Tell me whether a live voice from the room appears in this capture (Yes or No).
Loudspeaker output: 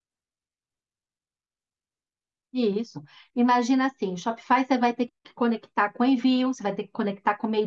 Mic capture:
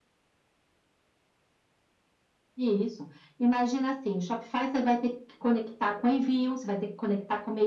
No